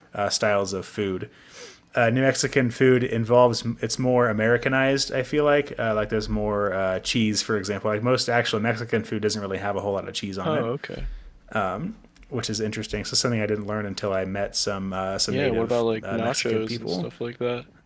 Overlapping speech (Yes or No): Yes